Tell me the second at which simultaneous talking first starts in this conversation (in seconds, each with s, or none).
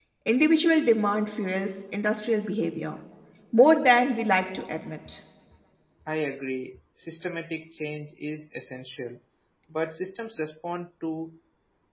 none